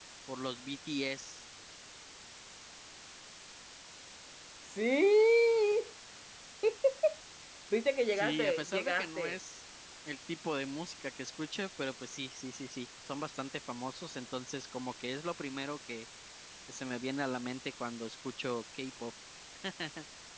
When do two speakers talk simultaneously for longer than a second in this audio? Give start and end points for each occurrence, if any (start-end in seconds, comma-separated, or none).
8.2-9.4